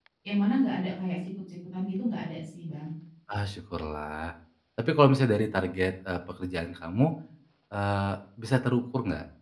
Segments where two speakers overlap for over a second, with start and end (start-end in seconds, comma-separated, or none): none